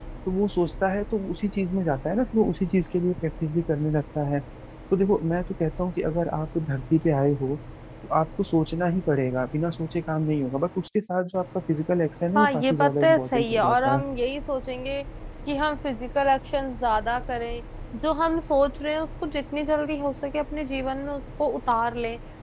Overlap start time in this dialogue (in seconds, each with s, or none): 12.3 s